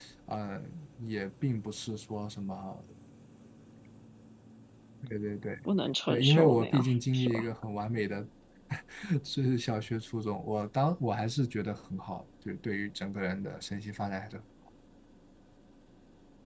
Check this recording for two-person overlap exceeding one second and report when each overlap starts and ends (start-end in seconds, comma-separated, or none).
6.1-7.4